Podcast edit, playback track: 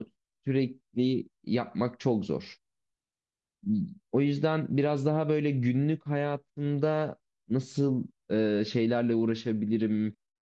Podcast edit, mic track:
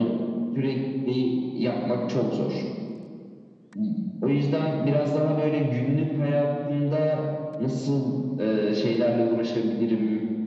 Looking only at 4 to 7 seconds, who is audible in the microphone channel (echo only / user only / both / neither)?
echo only